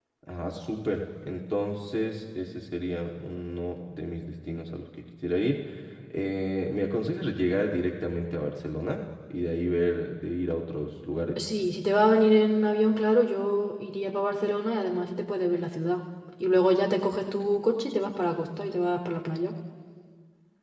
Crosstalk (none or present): none